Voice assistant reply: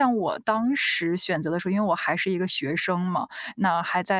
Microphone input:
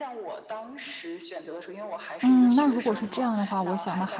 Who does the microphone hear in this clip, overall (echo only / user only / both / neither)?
both